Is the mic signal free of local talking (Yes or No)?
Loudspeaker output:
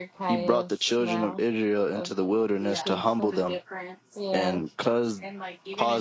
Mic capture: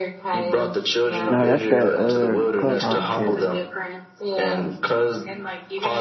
No